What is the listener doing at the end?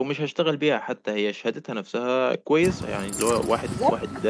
listening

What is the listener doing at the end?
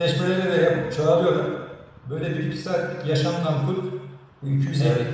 listening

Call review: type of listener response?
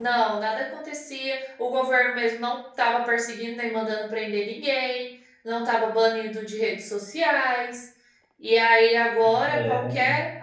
listening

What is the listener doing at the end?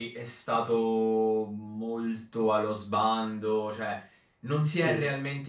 listening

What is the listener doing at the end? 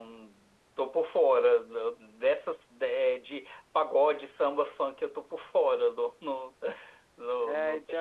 taking over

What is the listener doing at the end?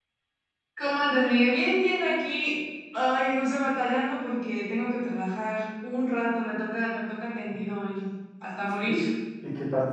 taking over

